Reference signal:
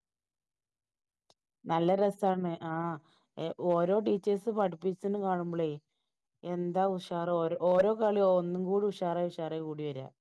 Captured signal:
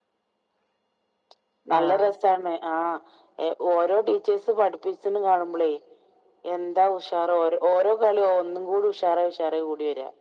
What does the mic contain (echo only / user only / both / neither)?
both